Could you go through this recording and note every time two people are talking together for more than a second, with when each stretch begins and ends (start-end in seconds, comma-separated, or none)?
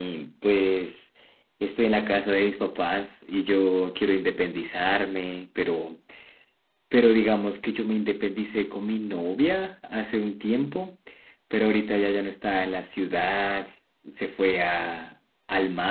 none